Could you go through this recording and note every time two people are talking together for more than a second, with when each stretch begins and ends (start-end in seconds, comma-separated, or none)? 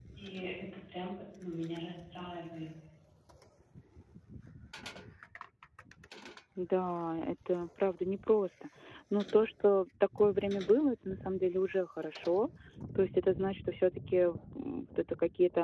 none